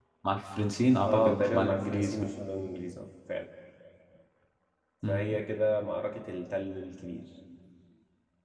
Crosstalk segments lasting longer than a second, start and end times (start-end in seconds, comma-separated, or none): 1.1-2.3